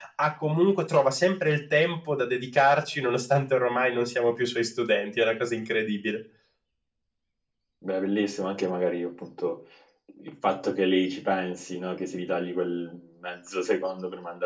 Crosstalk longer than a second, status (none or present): none